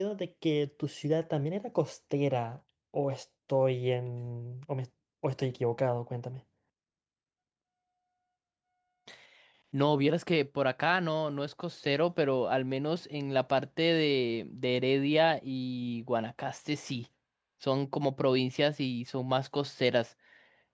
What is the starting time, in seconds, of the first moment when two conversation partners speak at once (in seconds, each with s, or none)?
none